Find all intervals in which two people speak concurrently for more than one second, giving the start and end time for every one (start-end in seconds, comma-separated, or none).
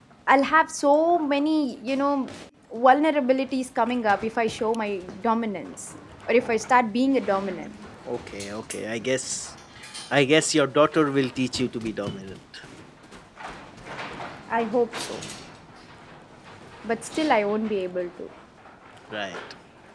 none